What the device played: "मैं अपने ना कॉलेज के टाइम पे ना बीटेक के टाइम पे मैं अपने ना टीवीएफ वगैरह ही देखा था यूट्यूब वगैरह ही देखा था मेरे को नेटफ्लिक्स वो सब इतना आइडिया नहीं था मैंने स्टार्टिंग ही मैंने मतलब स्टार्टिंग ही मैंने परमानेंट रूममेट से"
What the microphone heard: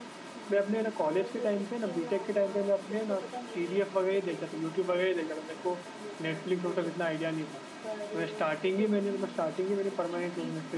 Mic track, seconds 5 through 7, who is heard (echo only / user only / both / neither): both